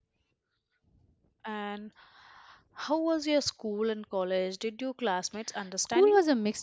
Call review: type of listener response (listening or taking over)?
taking over